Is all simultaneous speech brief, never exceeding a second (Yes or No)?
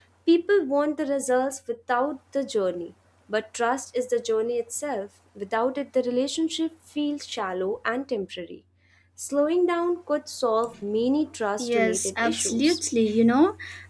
No